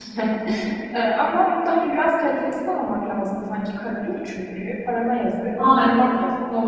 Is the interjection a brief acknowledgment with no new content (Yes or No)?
No